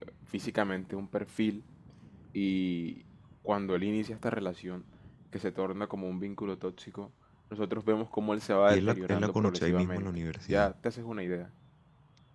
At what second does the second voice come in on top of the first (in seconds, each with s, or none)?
8.7 s